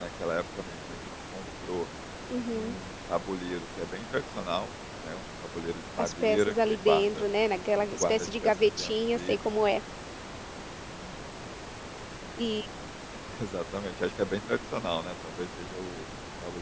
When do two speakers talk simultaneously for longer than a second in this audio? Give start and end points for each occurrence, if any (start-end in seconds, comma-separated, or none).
6.0-7.2, 8.0-9.5